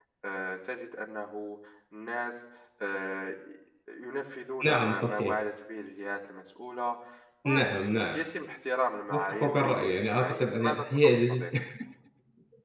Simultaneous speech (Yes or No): Yes